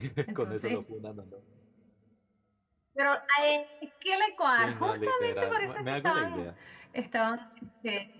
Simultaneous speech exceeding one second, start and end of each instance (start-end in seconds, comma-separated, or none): 4.6-6.5